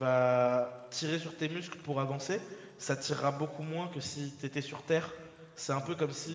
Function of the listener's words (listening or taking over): listening